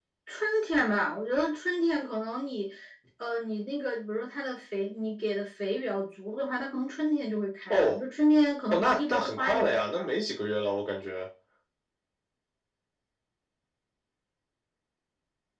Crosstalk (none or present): present